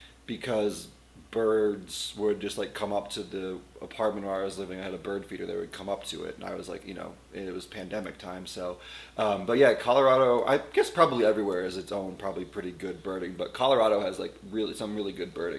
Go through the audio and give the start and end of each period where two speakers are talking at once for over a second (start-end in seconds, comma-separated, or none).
none